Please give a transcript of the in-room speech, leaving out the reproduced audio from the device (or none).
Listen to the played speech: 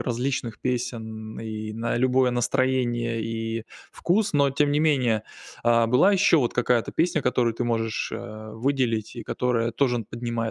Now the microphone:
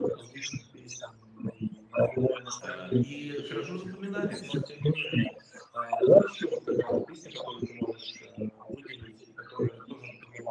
э, и хорошо запоминается.